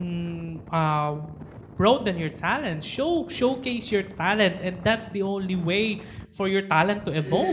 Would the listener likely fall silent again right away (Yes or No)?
No